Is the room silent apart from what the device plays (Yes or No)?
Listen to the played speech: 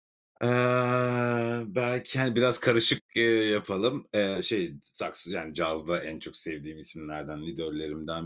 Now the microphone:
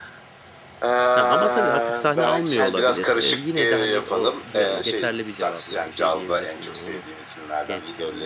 No